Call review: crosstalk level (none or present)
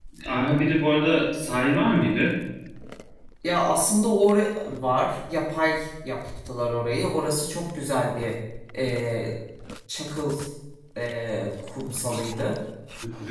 none